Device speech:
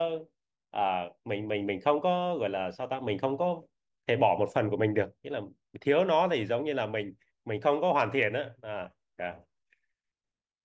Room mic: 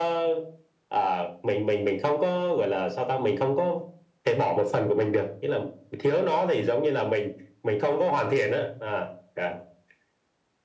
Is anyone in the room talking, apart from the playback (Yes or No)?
No